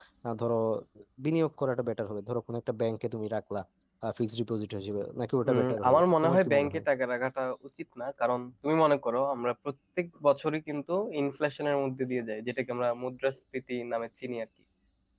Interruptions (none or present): present